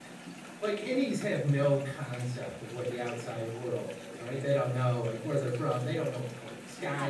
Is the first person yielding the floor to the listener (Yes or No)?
Yes